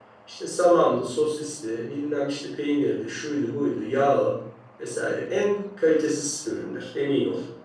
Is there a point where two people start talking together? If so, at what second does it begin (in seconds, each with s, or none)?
none